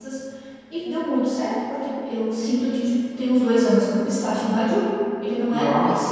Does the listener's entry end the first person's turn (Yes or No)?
Yes